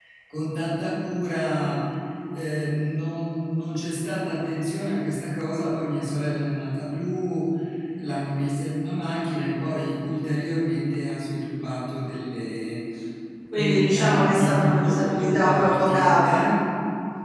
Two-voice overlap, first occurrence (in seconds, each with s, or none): 13.6 s